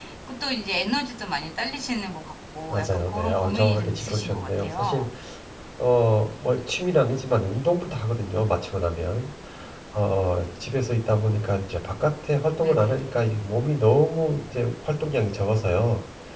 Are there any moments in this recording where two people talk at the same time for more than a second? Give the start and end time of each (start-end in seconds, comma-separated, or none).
2.7-5.0